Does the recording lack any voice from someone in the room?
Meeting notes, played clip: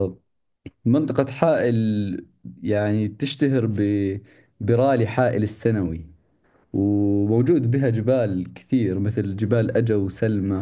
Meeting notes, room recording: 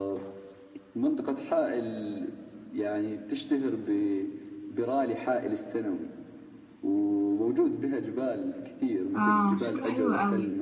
No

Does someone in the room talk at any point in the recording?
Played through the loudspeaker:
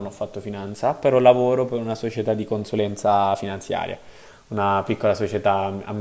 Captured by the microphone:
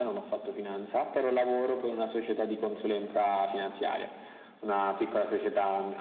No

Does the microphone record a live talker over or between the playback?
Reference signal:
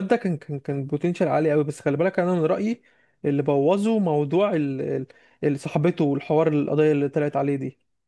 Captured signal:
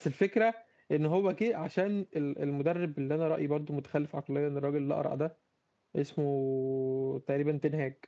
Yes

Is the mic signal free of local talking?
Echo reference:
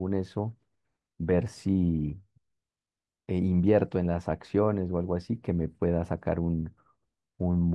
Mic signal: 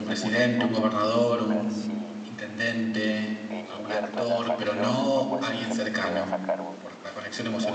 No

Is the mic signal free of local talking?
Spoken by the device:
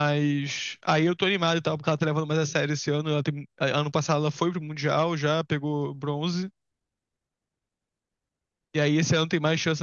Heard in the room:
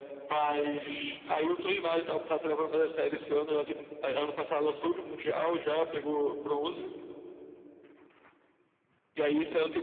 Yes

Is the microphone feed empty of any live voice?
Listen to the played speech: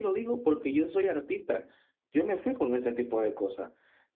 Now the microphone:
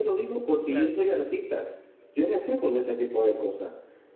No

